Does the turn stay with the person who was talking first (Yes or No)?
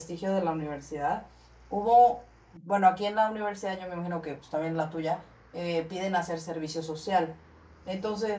Yes